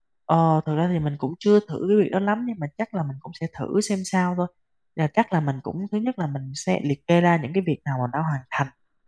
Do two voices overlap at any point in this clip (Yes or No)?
No